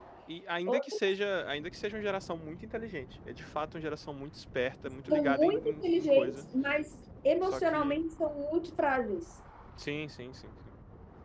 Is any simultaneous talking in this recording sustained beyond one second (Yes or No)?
Yes